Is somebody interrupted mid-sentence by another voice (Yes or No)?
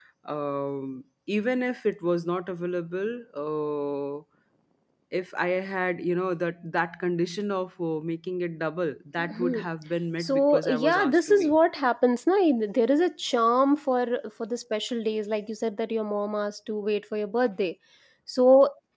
Yes